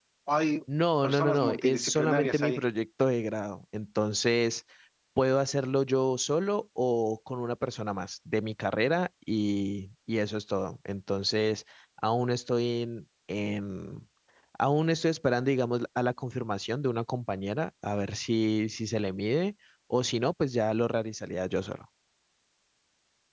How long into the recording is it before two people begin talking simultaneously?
1.0 s

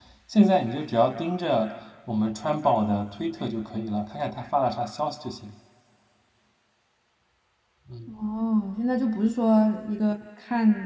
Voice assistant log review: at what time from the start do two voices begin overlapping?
none

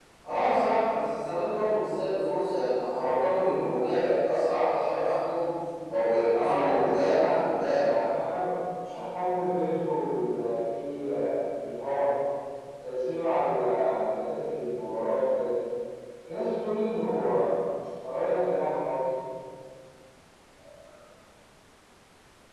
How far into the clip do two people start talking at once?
6.3 s

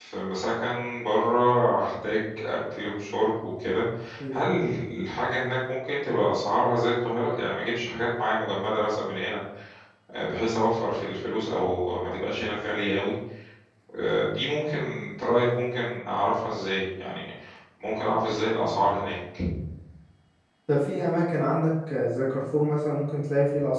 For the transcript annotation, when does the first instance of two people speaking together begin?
none

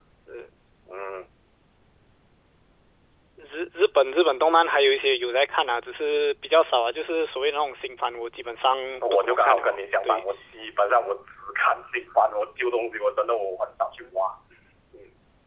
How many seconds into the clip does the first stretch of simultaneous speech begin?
9.0 s

